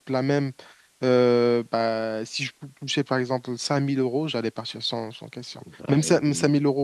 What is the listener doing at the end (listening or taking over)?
listening